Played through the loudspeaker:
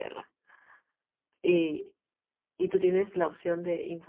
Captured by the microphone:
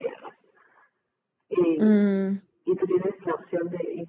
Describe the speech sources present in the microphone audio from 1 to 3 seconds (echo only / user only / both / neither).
both